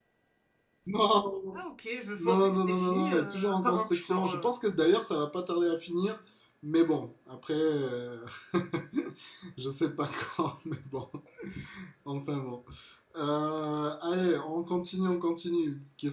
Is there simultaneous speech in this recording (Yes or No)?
Yes